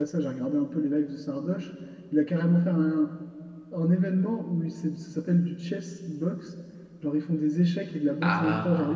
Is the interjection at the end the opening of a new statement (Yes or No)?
No